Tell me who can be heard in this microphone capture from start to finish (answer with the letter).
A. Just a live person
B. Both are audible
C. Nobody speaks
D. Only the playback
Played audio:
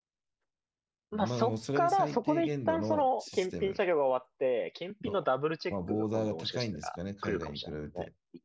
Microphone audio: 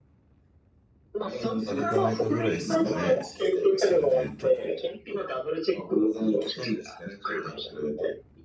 B